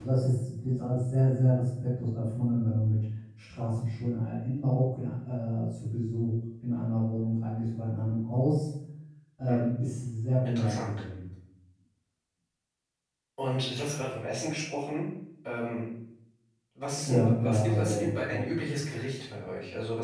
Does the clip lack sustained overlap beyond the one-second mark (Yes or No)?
No